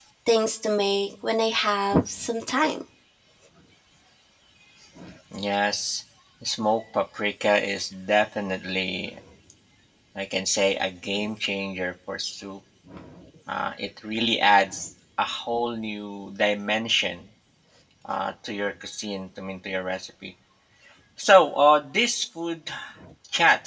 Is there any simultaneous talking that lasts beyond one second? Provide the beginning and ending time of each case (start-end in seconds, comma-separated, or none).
none